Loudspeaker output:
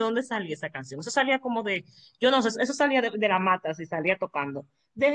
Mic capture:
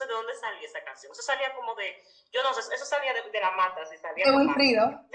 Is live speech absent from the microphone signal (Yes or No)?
No